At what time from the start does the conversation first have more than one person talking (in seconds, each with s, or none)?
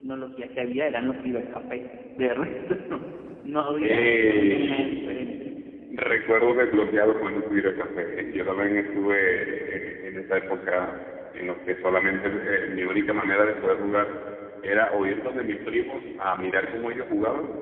3.8 s